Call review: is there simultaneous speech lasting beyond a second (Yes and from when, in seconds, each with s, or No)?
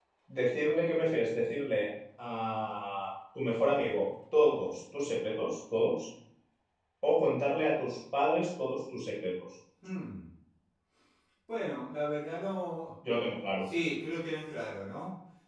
No